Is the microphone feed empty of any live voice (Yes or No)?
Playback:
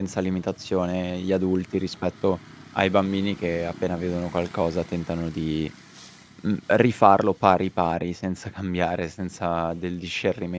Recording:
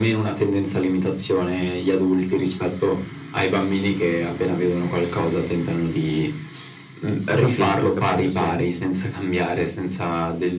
No